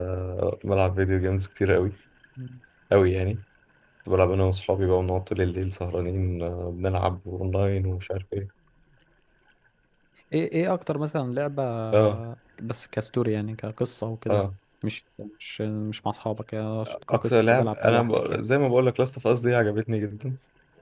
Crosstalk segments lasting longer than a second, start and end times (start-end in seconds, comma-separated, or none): 17.1-18.4